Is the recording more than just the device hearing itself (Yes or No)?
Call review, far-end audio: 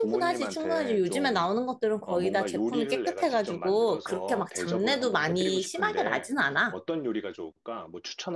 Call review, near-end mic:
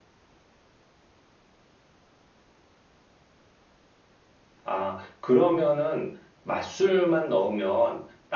Yes